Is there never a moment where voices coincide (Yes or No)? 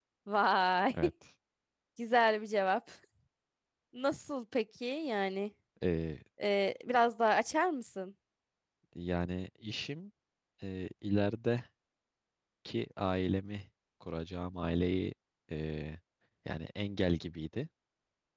Yes